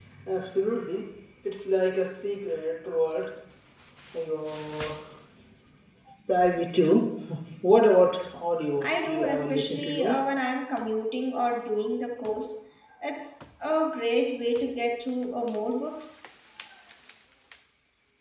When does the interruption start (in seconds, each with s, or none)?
8.8 s